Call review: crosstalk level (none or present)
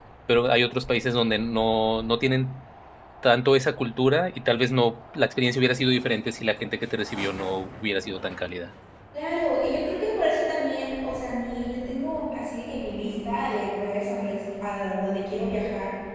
none